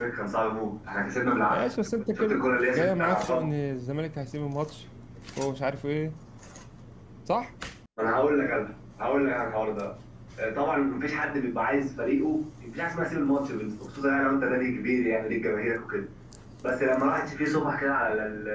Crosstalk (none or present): present